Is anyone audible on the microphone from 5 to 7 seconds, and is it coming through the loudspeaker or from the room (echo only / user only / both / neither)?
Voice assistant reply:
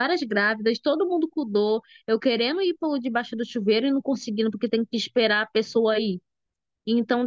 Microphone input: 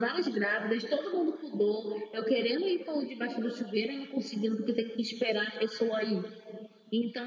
echo only